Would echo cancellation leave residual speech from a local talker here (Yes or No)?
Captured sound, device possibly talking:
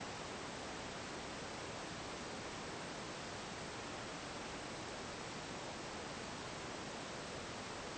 No